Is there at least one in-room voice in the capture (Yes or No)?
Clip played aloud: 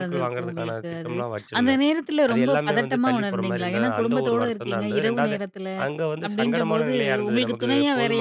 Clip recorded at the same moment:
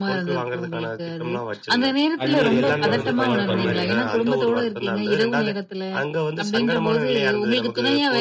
Yes